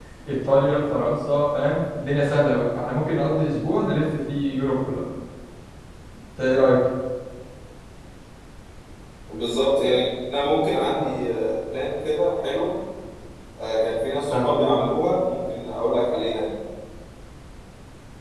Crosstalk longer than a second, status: none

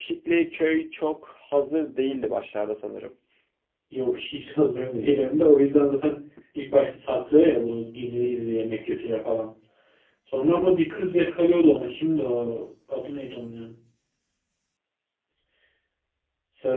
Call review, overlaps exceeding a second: none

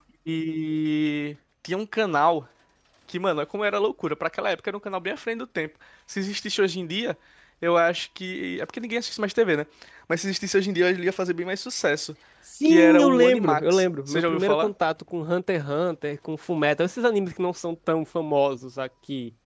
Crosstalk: present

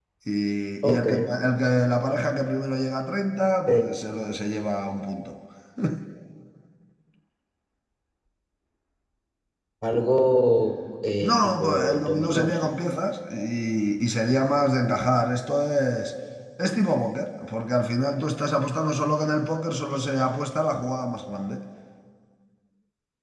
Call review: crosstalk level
present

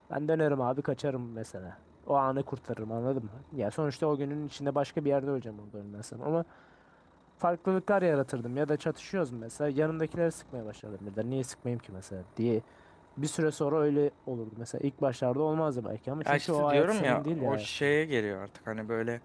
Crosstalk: present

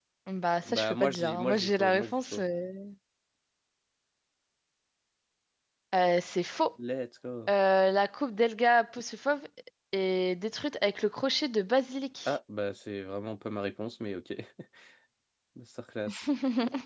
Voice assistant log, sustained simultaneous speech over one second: present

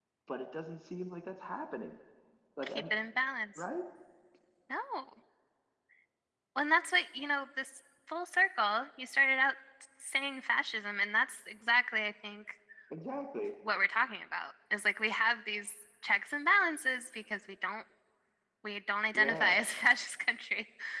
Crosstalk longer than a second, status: none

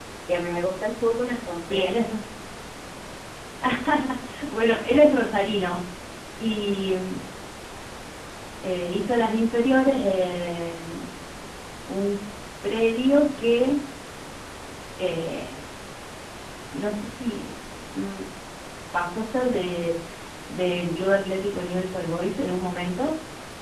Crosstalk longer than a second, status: none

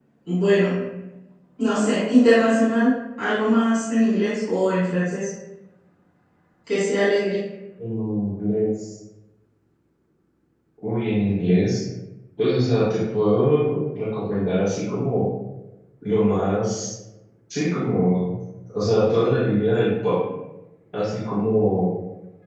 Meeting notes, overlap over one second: none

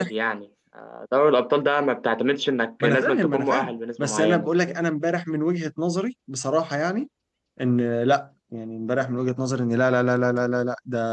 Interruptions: present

